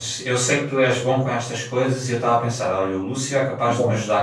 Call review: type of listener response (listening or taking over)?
listening